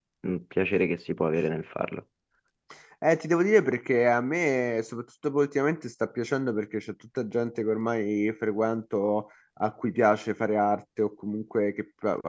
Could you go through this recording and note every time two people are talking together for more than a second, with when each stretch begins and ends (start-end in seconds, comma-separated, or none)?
none